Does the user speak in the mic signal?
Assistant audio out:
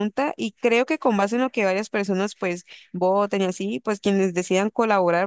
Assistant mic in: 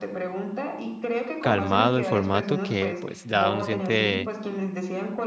Yes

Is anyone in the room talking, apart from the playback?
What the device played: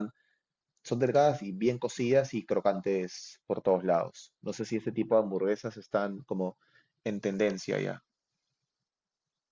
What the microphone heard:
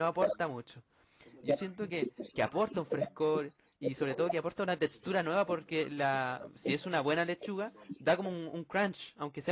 Yes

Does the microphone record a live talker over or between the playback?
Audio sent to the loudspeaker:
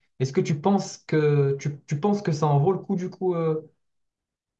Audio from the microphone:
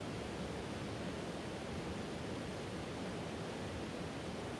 No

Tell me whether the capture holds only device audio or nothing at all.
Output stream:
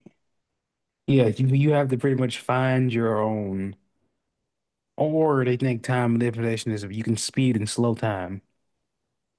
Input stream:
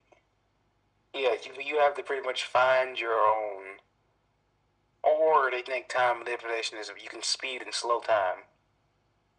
Yes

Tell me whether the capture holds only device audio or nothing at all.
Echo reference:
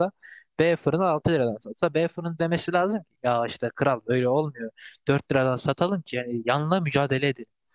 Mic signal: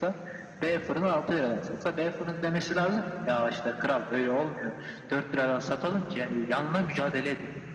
Yes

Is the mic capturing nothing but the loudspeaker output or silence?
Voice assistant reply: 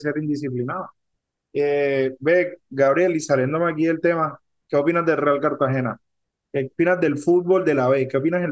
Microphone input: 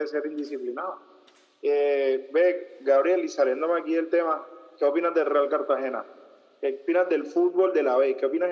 Yes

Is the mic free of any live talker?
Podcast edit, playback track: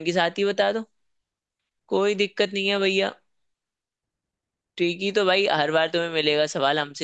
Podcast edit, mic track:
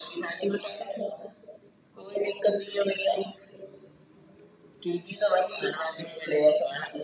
Yes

